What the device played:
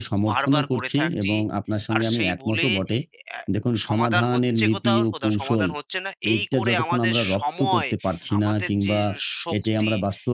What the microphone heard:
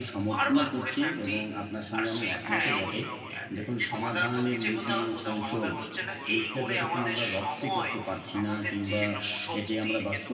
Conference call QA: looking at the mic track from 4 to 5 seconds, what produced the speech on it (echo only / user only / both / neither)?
both